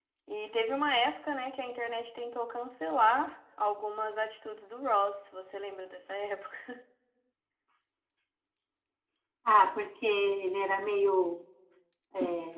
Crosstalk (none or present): none